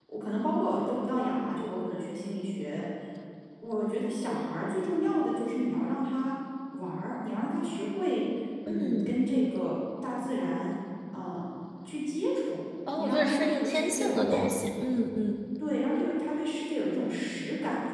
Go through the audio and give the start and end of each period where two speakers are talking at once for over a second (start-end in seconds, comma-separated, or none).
13.0-14.3